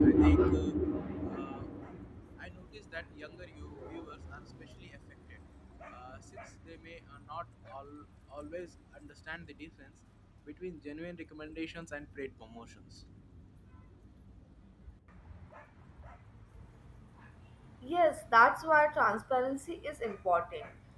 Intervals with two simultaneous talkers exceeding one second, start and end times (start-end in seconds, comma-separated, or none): none